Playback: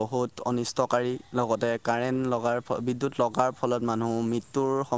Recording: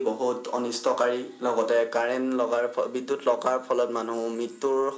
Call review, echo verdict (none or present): present